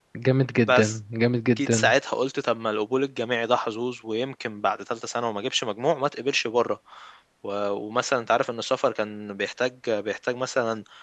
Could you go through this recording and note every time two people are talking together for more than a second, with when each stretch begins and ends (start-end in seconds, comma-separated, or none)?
none